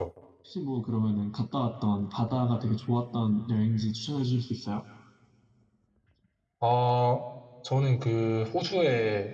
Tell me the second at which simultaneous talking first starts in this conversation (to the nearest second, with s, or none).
none